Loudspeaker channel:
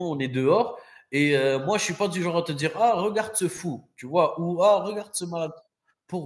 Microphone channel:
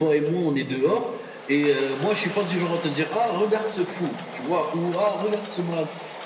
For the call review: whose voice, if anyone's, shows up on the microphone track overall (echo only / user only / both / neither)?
echo only